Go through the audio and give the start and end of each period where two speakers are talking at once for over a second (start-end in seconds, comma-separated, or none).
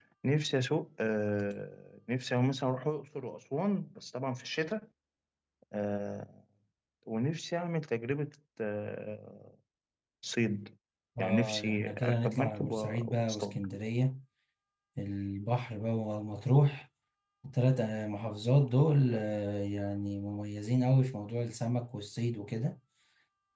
11.2-13.6